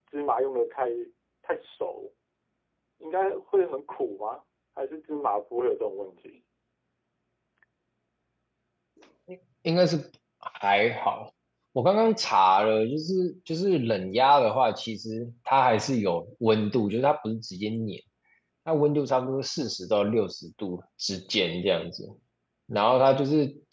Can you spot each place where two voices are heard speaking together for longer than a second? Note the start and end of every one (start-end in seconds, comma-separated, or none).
none